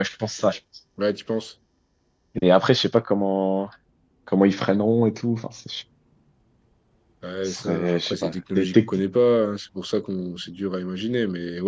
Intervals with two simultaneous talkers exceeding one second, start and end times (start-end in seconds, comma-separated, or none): 7.5-8.9